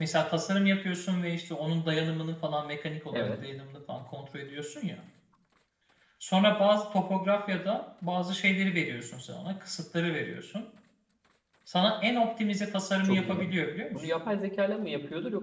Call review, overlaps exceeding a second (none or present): none